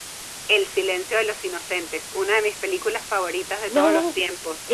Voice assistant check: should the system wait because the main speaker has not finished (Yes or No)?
No